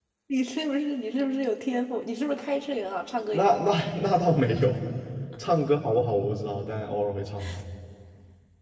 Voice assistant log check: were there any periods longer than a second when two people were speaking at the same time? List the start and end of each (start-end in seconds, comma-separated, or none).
none